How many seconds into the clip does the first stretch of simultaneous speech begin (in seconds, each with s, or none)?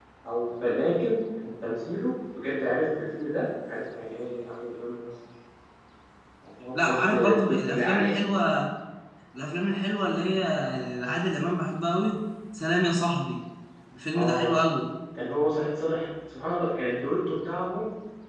6.7 s